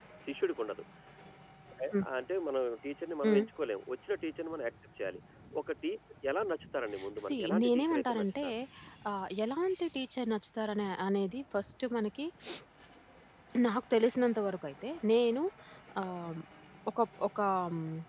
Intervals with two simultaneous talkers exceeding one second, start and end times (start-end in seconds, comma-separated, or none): 7.2-8.5